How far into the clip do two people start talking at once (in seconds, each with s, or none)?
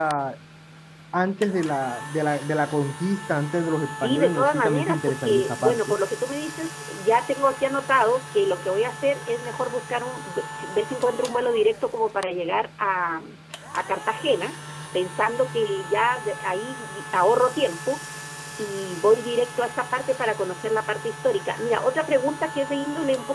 4.0 s